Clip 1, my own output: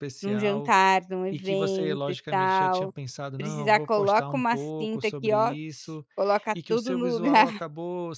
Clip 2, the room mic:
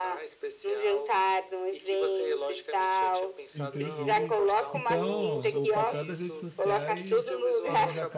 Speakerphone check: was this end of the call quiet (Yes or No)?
No